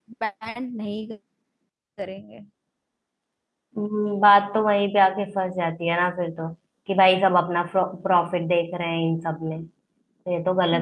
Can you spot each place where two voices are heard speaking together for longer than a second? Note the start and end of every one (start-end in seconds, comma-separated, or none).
none